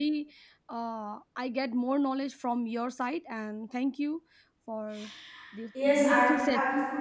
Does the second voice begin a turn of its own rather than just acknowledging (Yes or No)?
Yes